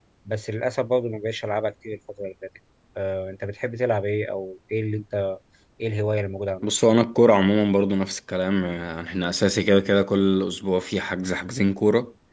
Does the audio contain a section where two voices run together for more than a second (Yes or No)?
No